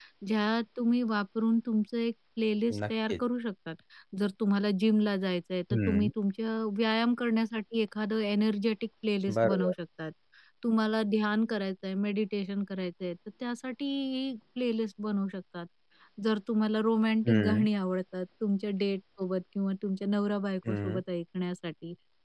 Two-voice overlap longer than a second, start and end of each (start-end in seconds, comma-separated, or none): none